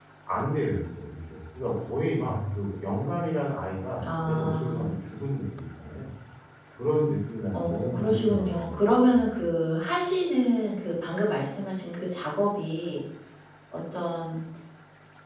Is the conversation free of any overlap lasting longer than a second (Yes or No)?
No